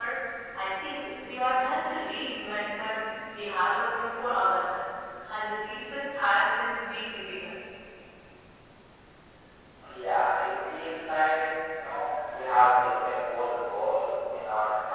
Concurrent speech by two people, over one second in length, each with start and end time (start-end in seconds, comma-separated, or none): none